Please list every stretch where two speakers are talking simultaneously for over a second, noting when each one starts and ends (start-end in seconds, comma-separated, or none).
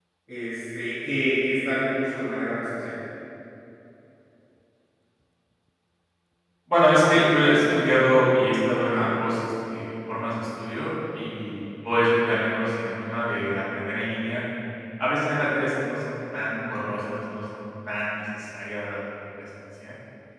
none